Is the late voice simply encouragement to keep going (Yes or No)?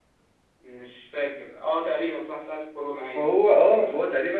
No